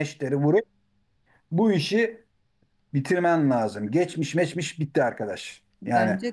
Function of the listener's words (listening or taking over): listening